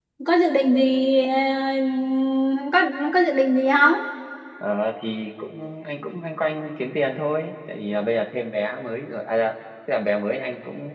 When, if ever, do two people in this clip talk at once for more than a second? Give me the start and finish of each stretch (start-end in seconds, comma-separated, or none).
none